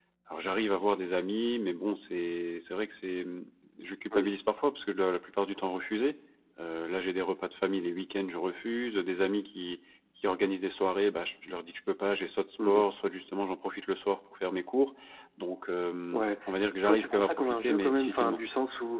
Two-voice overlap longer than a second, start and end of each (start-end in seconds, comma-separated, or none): 16.8-18.4